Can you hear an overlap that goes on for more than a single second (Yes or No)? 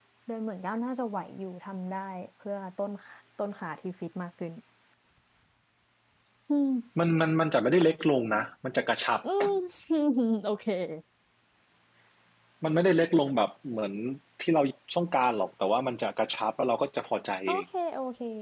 No